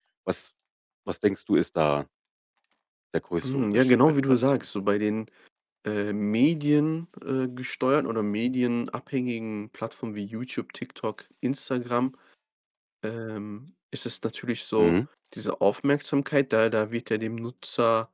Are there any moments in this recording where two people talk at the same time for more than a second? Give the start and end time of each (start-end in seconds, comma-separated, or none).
3.4-4.6